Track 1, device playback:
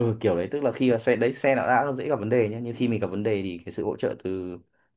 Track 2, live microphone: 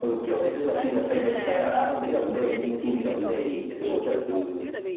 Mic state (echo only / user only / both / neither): both